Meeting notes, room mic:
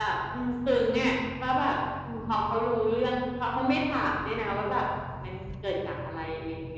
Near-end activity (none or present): none